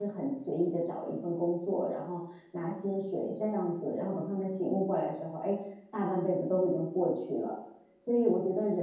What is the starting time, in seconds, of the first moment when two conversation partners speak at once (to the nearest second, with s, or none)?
none